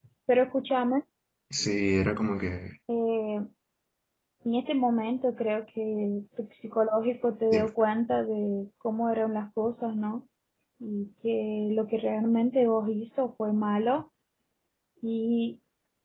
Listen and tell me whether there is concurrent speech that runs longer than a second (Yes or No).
No